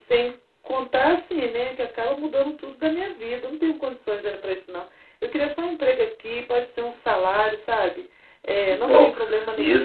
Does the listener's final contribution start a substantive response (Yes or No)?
Yes